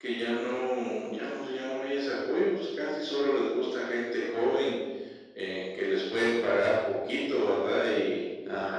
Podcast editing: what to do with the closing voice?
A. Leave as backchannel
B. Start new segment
B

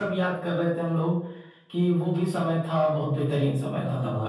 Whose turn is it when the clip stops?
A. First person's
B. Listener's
B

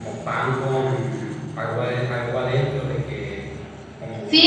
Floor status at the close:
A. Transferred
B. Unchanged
A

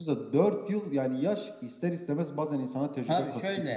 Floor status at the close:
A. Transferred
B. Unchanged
A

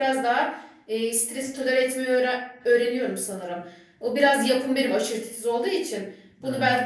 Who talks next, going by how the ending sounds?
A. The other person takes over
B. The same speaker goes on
B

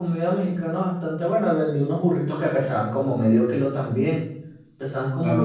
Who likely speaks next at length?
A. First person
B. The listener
B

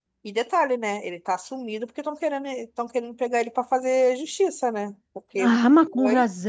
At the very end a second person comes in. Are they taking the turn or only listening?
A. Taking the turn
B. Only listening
A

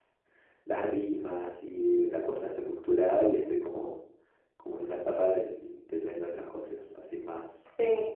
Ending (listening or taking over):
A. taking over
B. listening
A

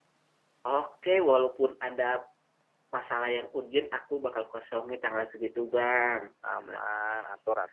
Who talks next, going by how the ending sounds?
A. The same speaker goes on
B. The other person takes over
B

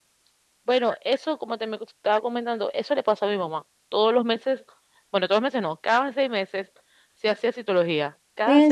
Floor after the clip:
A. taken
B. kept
A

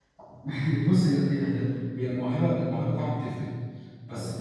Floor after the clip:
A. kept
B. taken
A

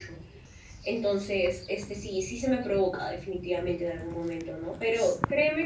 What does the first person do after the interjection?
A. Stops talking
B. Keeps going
B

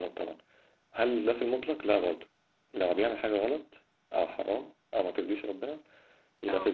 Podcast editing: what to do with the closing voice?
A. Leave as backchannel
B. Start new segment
A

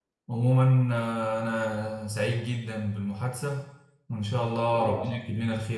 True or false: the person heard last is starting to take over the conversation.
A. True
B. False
B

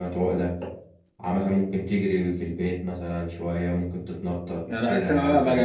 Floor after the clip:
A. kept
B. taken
B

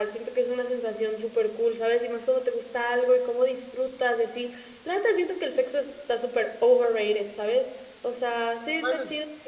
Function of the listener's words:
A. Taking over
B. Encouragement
A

